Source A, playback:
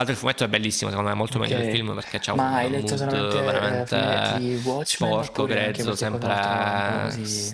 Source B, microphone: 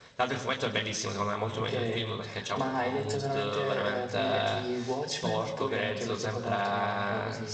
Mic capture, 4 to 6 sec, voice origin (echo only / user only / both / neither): echo only